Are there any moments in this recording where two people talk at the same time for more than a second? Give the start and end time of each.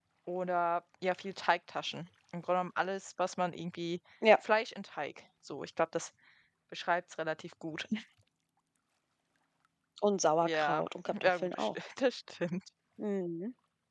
10.4-11.7

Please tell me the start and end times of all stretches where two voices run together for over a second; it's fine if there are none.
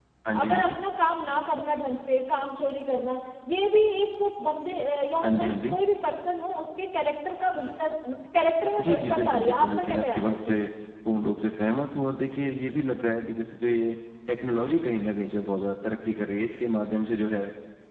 8.8-10.5

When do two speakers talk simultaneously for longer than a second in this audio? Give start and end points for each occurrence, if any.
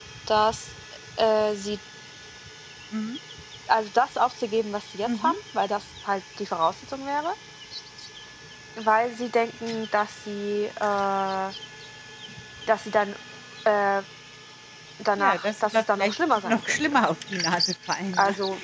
15.2-17.0

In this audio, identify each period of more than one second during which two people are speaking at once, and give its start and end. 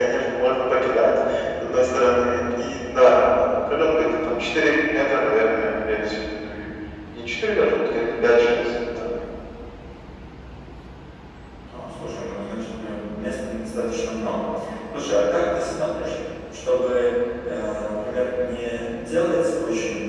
none

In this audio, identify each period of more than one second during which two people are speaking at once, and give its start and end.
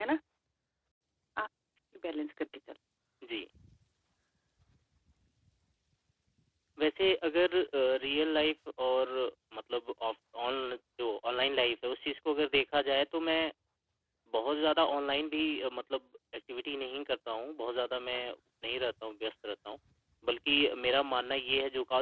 none

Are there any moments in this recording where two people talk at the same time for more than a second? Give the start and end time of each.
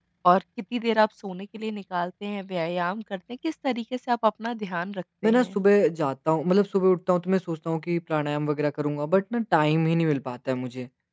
none

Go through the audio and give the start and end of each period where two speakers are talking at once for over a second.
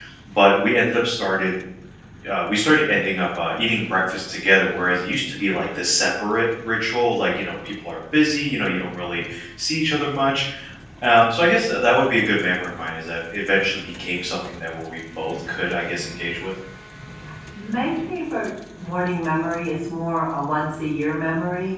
none

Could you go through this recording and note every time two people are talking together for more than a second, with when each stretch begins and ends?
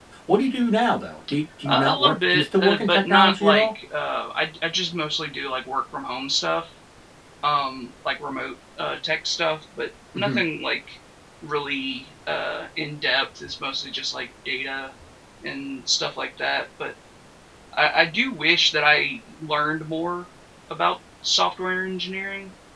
1.6-3.7

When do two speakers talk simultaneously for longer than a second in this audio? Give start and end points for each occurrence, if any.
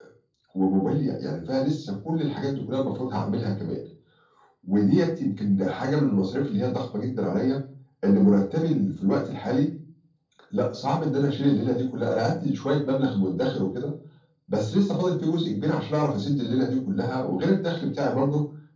none

